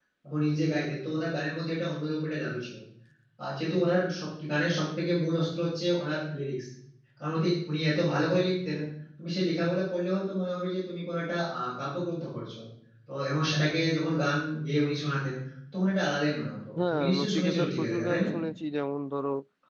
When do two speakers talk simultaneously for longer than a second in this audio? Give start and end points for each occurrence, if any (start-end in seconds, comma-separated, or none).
16.8-18.2